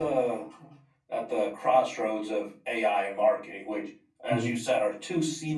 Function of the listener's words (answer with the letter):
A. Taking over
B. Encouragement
B